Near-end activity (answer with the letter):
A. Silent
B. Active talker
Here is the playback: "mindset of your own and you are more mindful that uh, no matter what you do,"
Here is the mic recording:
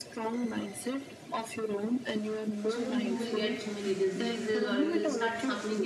B